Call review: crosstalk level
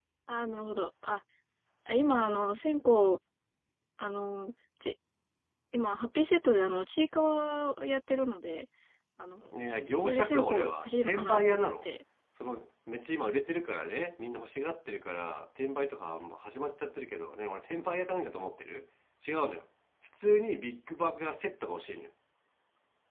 present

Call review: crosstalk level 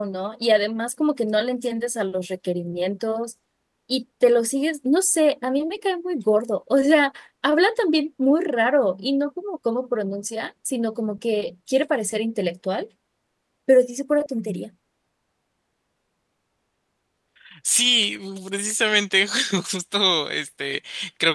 none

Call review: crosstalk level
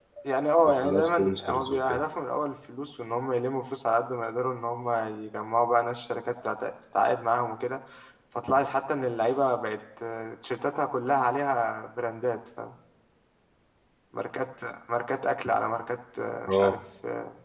present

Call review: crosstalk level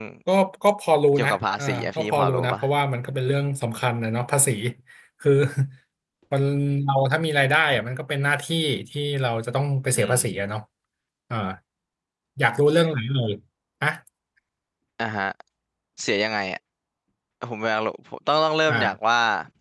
present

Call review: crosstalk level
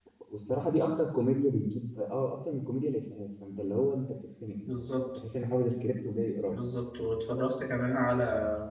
none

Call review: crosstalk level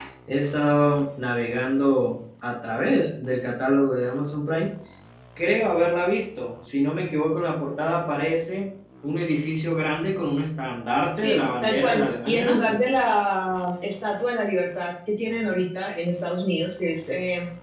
present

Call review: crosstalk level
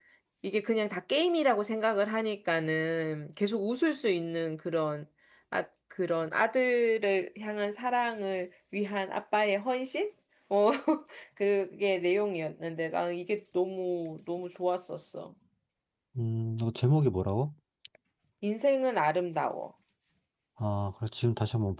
none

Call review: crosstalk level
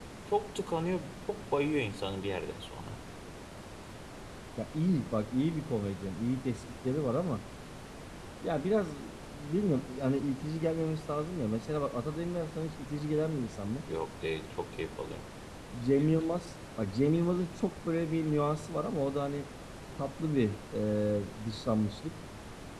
none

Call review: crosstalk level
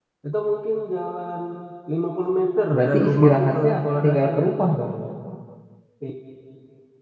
present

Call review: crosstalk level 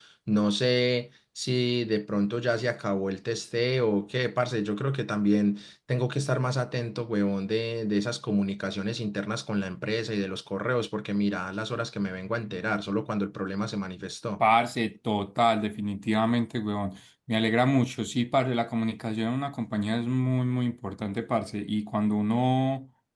none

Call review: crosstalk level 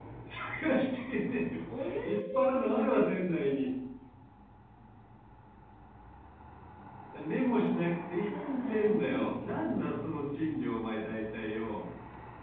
present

